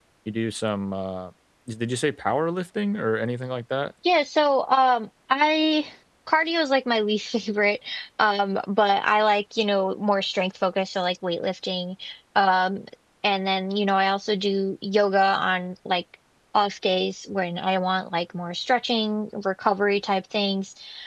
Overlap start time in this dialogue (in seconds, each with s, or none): none